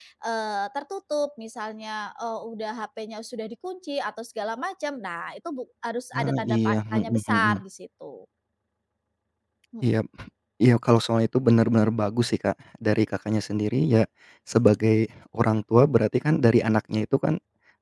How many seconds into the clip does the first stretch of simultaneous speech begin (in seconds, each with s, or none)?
6.1 s